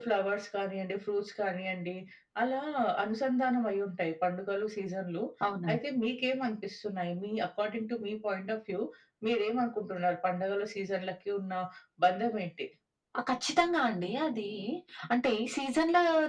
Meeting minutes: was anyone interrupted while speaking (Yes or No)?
No